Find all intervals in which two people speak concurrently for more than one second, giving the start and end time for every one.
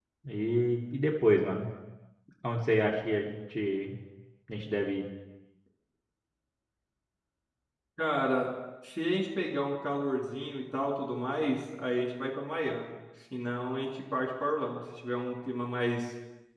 none

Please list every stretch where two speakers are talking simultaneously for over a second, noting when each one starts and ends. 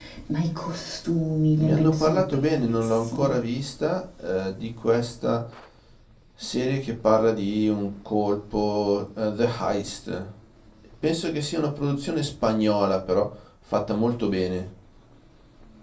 1.6-3.4

